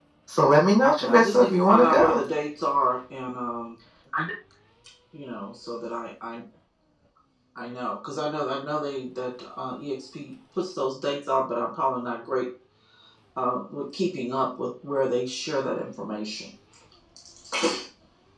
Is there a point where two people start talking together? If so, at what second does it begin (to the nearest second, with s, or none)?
1 s